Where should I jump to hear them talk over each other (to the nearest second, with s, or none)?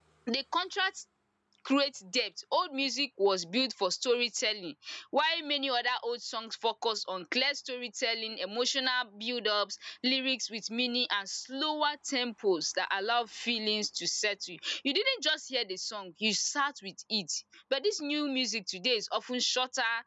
none